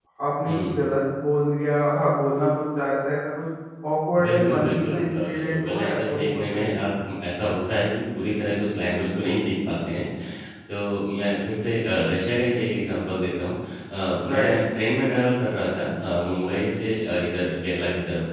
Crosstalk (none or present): present